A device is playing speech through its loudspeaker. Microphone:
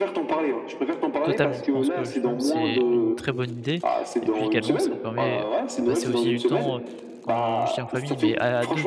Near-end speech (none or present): present